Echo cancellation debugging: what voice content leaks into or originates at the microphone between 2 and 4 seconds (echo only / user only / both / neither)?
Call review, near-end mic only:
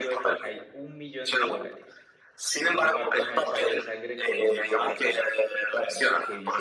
both